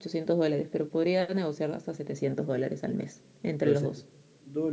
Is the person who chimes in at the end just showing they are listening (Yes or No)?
No